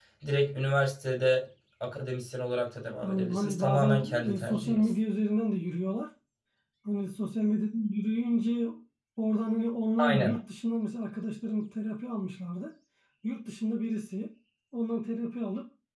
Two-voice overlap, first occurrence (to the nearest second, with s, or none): 3 s